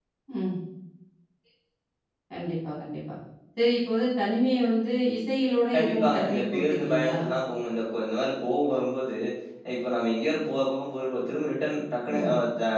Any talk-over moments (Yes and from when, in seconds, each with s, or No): Yes, from 5.7 s